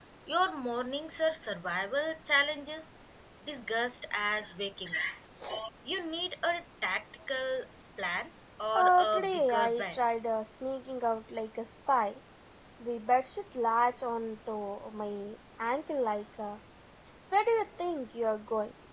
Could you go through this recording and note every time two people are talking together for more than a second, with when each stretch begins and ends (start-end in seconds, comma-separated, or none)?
8.8-10.0